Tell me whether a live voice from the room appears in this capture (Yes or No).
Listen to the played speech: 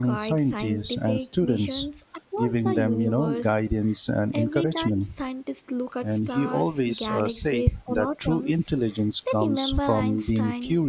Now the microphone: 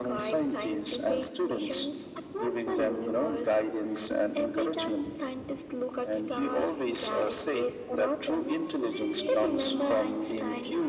Yes